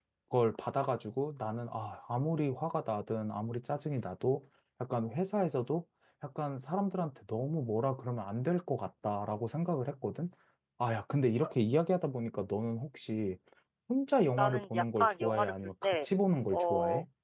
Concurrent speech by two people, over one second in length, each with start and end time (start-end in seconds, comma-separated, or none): 14.4-16.1